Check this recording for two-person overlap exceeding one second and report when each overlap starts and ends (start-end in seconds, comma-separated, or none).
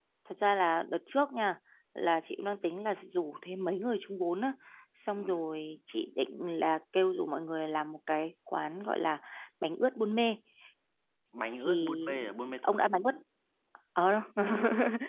11.7-12.9